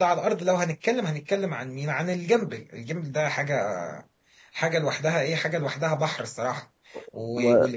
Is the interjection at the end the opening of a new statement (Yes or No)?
No